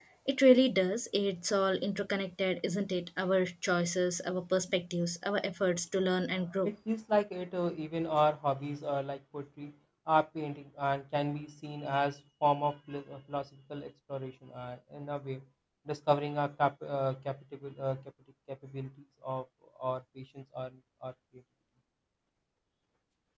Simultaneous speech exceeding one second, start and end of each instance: none

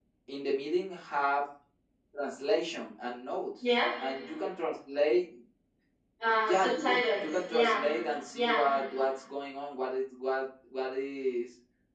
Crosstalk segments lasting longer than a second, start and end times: 6.4-7.8

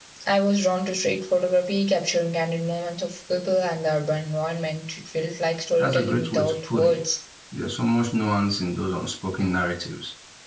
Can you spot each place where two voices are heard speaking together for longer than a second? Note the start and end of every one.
5.8-7.1

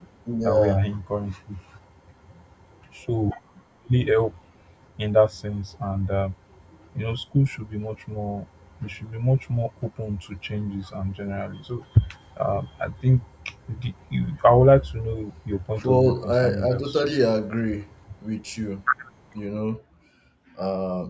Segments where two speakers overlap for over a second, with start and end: 15.8-17.1

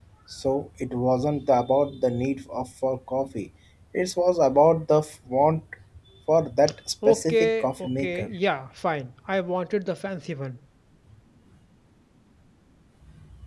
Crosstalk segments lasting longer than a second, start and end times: 7.1-8.3

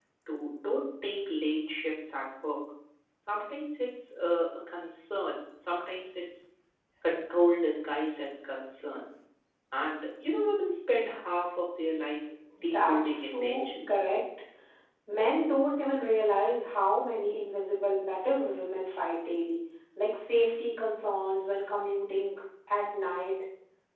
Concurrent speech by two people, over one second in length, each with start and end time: 12.6-14.0

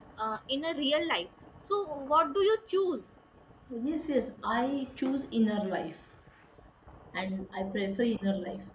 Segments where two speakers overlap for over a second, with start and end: none

